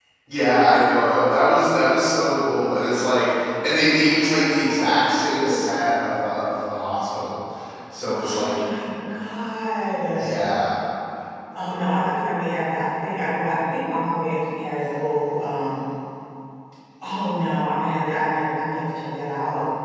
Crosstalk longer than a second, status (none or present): present